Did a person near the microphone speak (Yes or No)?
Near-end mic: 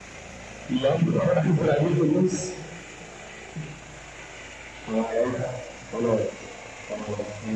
No